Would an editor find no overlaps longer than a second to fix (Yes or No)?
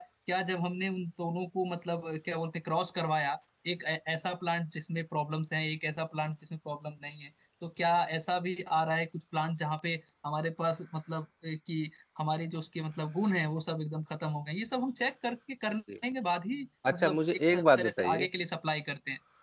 No